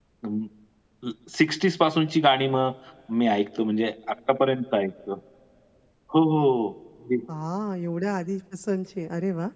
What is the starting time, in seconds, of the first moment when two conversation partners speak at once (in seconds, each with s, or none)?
none